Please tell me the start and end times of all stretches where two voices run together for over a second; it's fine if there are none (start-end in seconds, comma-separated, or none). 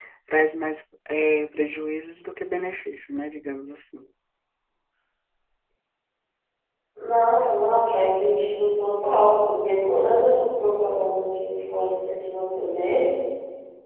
none